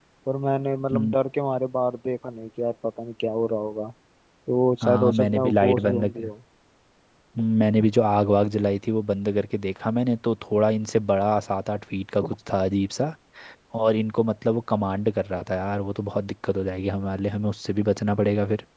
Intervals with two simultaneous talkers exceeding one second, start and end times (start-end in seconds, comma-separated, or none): 4.8-6.3